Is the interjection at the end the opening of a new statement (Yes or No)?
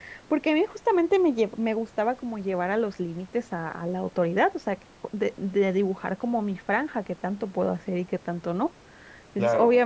No